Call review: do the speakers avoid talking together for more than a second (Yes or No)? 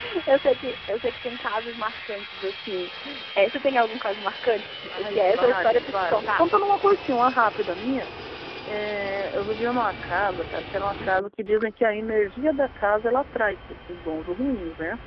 No